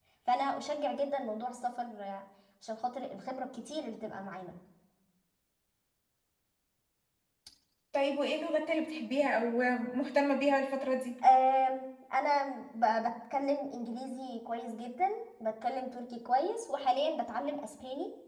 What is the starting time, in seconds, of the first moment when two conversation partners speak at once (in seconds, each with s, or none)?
none